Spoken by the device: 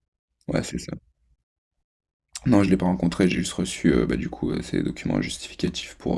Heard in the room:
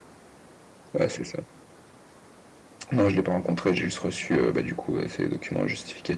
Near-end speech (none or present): none